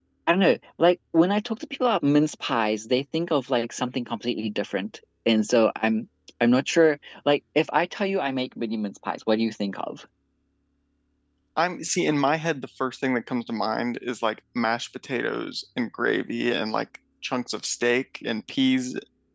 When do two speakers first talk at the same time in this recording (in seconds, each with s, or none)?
none